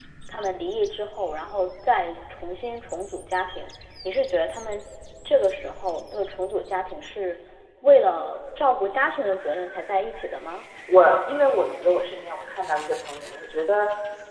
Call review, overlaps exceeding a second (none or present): none